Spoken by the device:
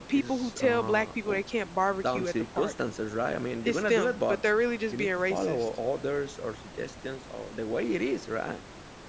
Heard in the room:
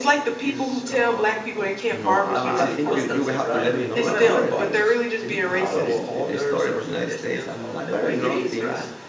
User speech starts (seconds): 2 s

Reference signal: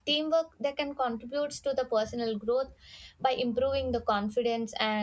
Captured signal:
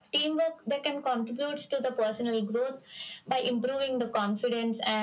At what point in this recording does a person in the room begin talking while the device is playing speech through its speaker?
none

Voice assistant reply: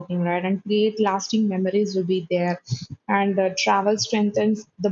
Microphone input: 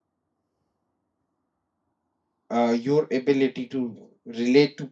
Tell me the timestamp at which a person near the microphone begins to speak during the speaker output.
2 s

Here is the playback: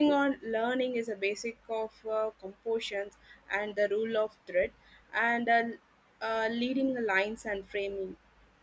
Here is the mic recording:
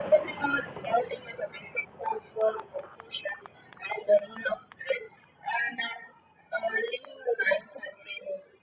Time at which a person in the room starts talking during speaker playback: none

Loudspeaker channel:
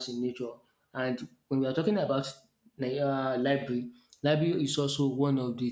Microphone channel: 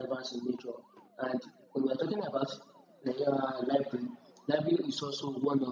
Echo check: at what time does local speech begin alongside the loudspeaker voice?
none

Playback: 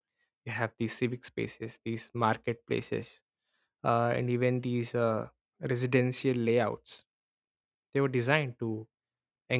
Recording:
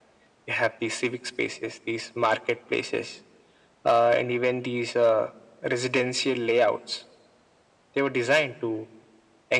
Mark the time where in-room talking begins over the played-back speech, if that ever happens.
none

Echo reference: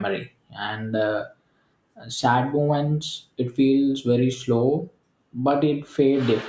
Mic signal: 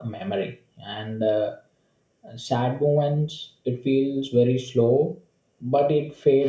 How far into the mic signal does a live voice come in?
none

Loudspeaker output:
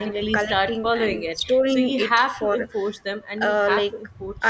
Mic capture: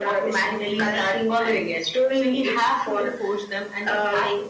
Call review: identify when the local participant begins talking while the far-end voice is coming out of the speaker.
none

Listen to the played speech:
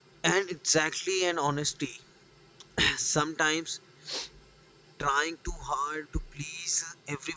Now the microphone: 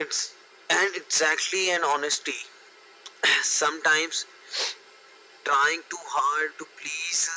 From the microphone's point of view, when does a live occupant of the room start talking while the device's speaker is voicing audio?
none

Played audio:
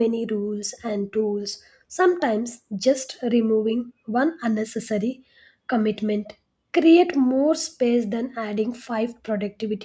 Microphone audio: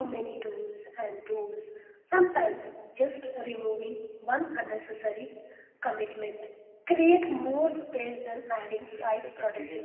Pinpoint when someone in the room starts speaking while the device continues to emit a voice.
9 s

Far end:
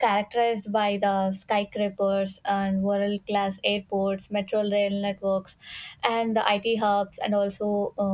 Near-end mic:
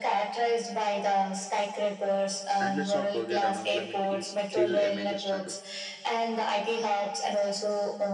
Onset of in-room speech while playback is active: 3 s

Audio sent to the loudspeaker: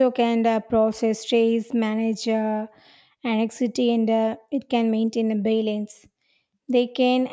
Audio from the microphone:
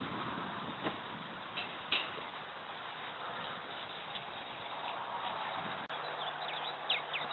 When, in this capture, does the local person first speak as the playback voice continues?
none

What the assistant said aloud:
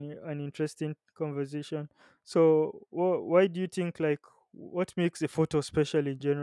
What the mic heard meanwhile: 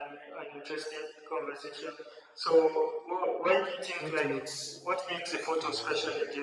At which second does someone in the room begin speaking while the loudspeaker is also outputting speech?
4 s

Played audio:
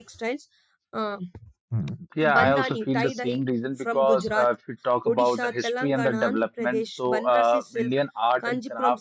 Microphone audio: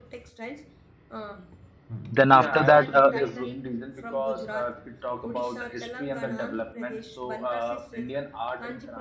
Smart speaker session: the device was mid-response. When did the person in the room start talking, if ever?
2 s

